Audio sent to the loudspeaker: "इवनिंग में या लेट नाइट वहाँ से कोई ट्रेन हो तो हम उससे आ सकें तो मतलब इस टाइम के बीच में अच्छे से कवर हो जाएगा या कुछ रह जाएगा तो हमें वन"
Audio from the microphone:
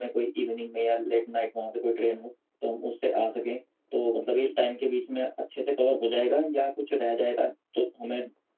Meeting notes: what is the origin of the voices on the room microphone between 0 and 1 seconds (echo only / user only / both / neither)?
echo only